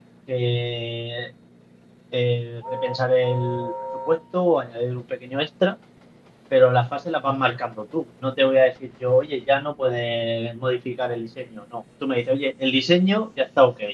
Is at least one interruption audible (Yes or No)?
No